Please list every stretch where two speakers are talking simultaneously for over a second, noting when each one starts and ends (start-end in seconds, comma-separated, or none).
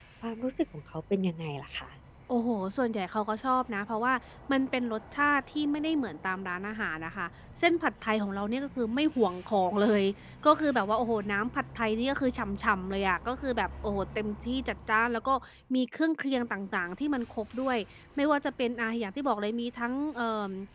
none